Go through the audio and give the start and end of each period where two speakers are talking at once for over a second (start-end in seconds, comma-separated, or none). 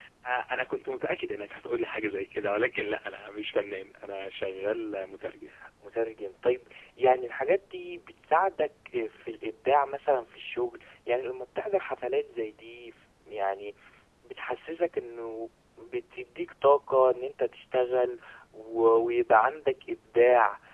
none